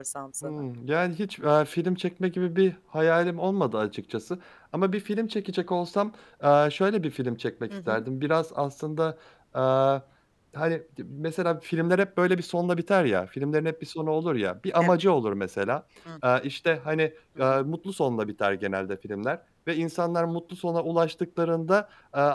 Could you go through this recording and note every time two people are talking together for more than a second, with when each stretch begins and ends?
none

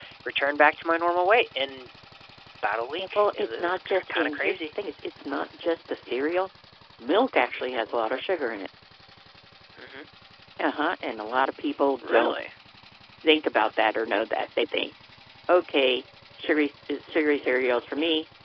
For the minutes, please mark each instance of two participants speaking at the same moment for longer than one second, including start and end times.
3.0-4.7

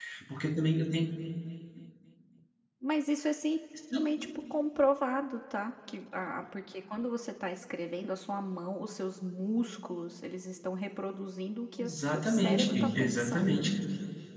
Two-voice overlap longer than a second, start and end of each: 11.8-13.7

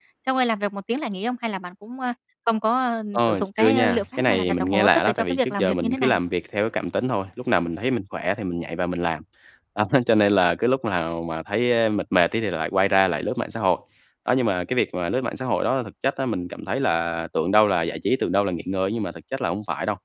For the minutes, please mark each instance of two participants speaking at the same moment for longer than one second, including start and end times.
3.1-6.2

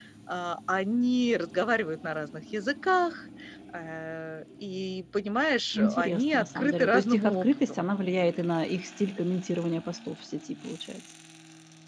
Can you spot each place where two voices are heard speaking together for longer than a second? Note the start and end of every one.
5.7-7.6

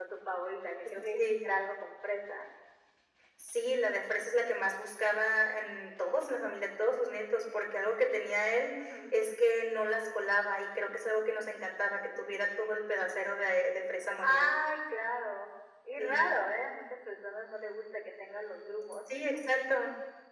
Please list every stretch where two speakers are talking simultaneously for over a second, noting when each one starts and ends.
none

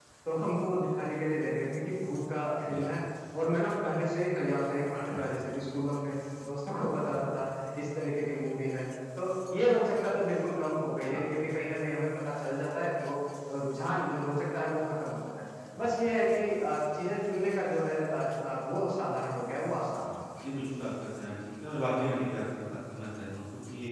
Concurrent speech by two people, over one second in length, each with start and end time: none

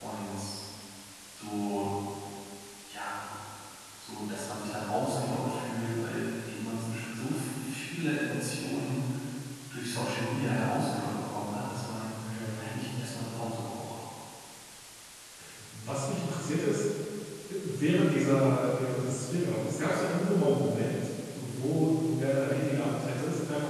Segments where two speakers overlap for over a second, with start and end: none

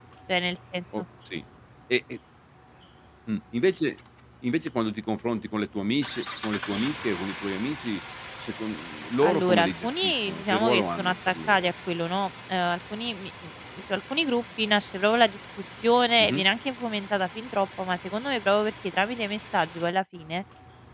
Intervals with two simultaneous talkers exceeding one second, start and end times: 9.2-11.7

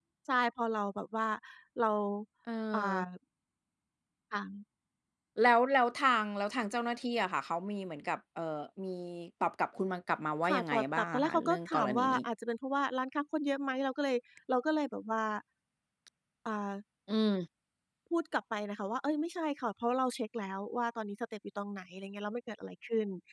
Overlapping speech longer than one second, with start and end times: 10.5-12.2

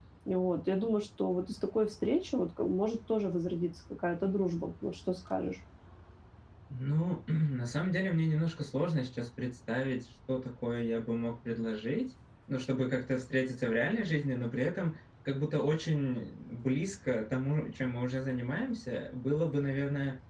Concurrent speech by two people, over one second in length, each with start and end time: none

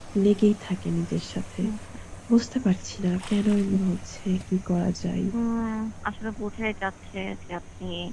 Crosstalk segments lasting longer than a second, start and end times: none

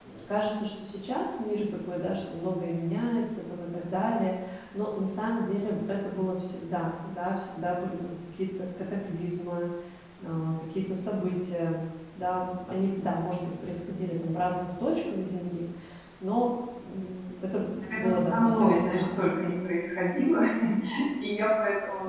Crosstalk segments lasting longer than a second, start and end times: 17.8-19.1

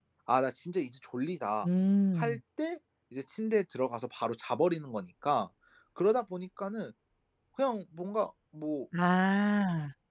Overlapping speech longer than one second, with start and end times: none

